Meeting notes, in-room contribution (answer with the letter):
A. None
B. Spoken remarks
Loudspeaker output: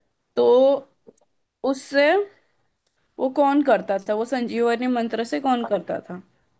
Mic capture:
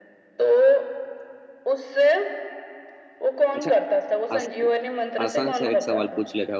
B